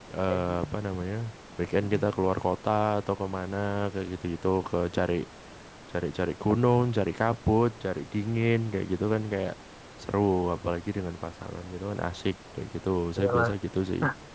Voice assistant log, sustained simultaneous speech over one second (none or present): none